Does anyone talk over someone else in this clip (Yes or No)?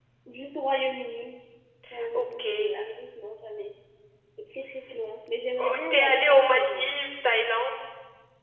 Yes